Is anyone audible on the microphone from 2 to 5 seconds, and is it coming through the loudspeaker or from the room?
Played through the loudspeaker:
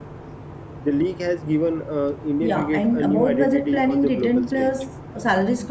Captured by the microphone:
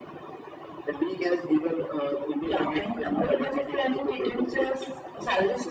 echo only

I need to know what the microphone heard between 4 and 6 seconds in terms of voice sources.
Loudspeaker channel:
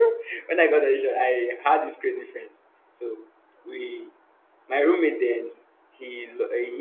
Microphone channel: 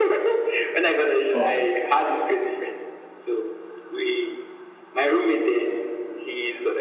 echo only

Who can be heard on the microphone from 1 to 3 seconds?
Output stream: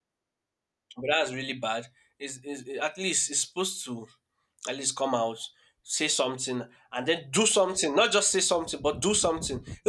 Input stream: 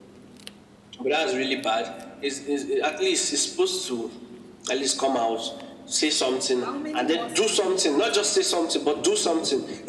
echo only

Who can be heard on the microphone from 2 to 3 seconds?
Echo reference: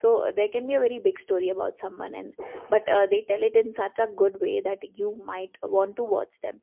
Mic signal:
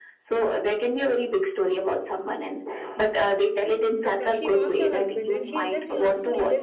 echo only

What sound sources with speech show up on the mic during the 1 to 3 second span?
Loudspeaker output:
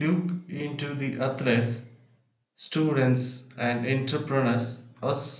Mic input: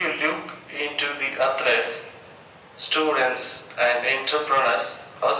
echo only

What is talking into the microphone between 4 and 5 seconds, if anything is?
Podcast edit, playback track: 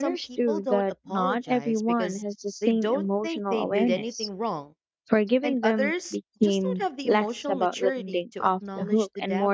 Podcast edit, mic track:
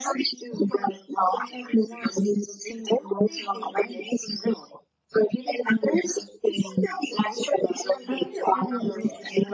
echo only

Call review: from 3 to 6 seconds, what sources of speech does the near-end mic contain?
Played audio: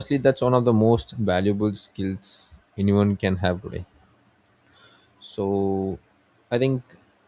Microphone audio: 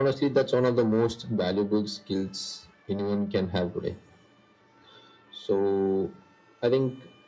echo only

